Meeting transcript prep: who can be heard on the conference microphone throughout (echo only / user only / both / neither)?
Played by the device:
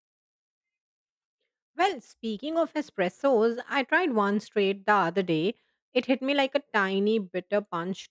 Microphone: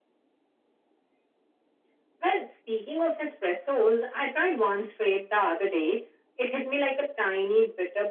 echo only